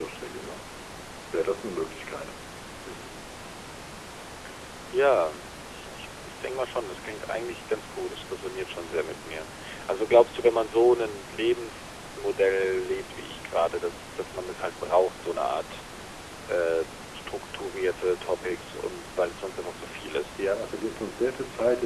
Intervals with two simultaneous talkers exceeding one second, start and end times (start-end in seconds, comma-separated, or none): none